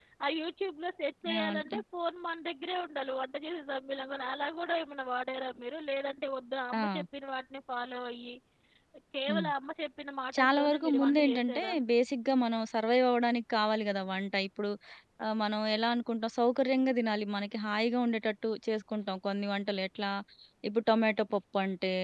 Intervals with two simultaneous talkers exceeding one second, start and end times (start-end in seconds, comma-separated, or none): 10.4-11.7